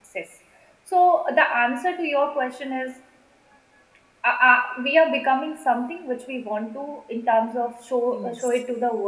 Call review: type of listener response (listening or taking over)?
listening